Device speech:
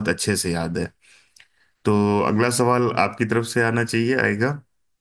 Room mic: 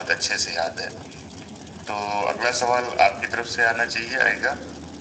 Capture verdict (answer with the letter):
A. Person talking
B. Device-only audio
B